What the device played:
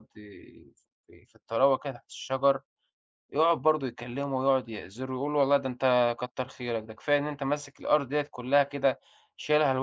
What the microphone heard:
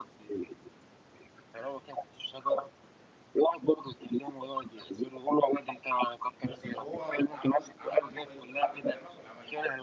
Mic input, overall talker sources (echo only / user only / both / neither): both